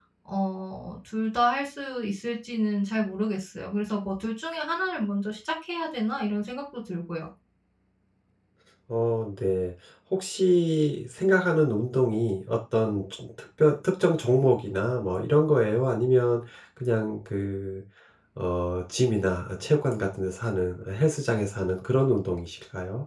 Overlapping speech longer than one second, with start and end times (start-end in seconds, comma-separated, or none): none